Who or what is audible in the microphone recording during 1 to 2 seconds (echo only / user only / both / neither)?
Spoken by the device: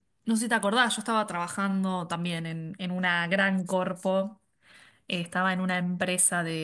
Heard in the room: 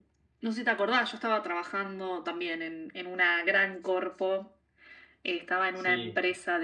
echo only